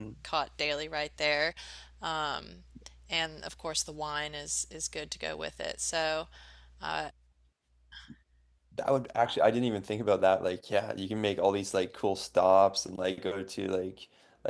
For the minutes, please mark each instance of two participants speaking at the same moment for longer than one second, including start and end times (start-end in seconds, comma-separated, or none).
none